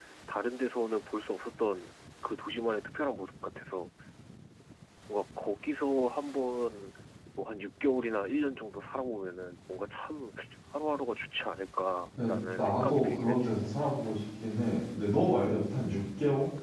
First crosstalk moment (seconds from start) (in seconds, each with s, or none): 12.2 s